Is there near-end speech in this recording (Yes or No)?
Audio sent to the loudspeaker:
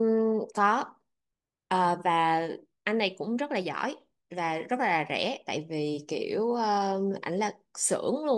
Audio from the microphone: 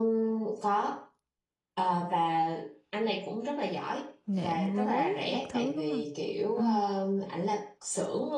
Yes